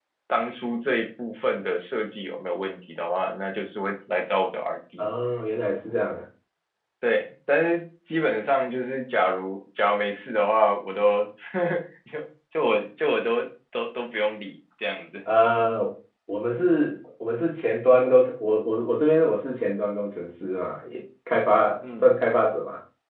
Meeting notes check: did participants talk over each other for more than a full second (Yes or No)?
No